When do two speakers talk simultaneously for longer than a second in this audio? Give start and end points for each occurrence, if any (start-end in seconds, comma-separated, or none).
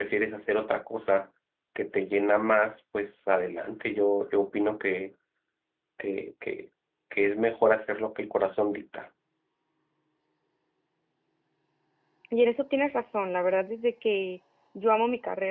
none